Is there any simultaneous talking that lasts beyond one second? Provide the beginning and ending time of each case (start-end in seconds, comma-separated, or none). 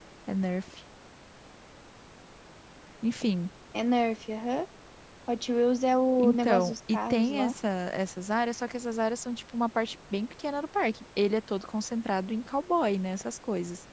6.2-7.5